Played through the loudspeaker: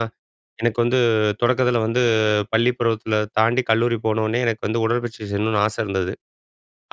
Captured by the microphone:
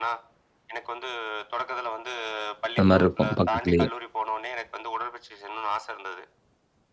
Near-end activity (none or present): present